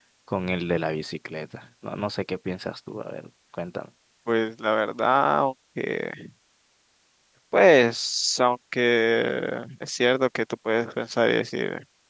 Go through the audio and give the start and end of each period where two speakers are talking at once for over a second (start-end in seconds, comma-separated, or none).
none